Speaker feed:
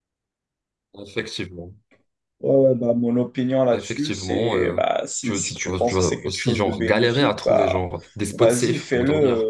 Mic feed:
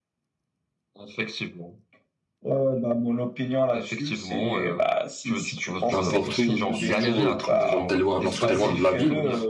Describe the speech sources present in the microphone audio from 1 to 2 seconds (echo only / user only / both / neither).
echo only